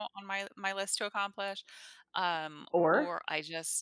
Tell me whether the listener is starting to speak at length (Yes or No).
No